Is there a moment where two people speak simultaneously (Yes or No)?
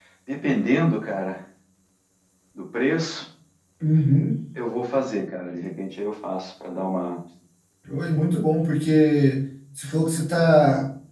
No